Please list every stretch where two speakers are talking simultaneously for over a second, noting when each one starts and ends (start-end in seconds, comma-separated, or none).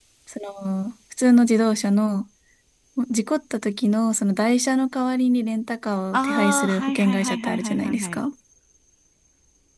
6.1-8.2